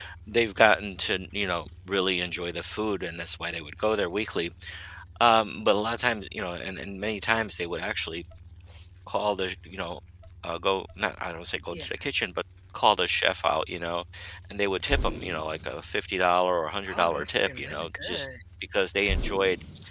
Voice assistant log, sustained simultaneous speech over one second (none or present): present